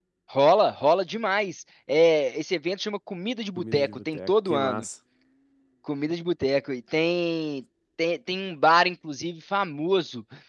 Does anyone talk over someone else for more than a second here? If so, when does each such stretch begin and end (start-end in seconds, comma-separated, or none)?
3.6-4.8